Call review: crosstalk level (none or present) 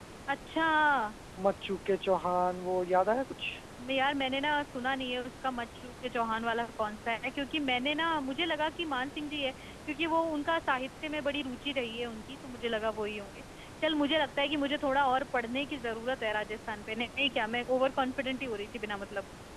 none